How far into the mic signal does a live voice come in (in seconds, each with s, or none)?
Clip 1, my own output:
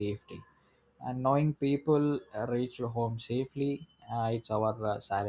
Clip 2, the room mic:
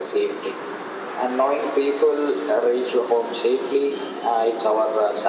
none